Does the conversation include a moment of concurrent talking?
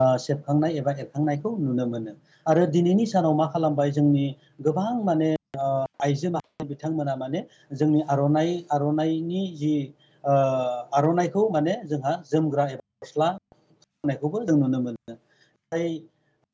No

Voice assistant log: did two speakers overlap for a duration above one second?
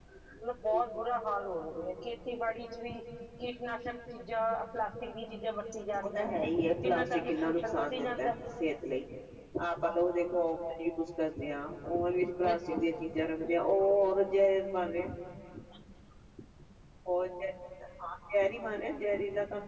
Yes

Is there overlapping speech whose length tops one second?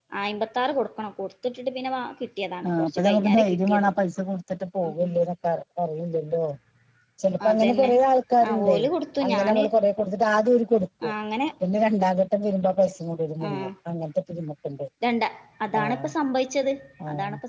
Yes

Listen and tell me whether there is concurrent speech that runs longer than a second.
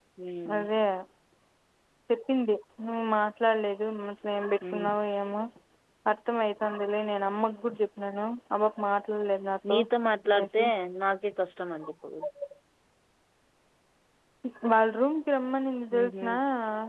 No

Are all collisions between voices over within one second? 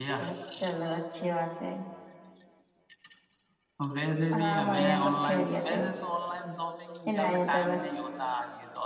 No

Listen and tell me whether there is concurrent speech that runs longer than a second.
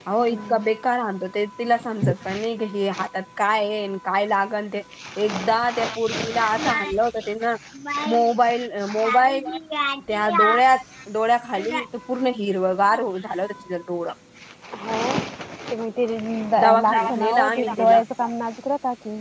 Yes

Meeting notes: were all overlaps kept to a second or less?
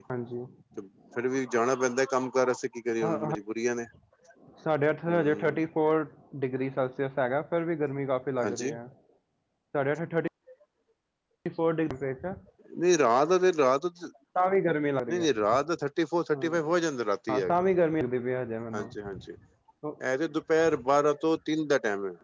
Yes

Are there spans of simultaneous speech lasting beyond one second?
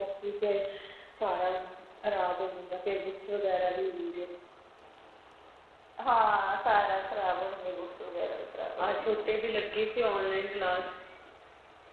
No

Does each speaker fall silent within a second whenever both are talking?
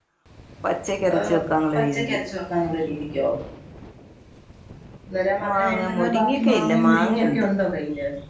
No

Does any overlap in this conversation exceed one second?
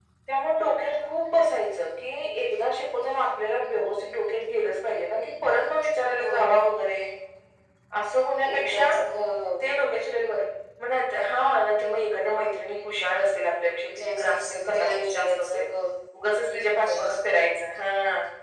Yes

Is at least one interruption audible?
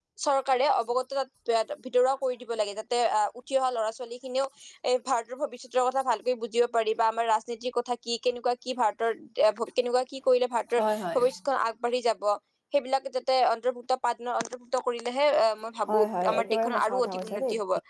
Yes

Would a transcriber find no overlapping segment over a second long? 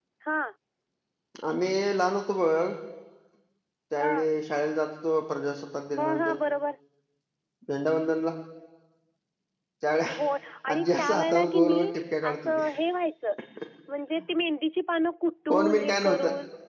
No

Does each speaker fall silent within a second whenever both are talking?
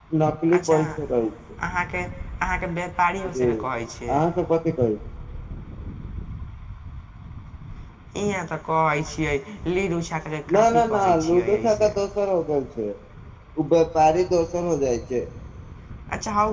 No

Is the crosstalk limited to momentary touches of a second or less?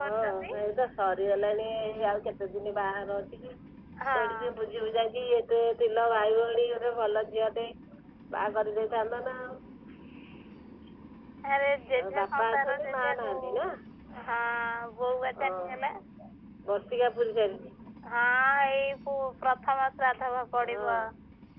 No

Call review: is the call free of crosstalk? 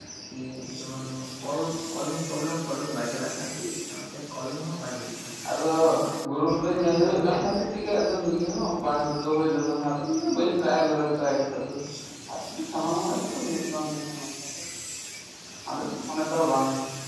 No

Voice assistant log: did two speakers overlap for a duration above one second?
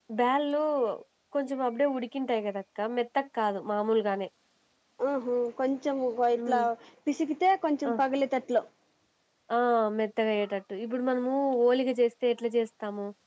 No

